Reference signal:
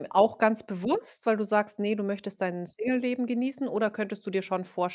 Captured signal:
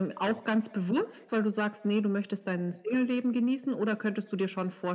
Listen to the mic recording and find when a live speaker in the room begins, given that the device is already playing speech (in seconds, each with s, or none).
none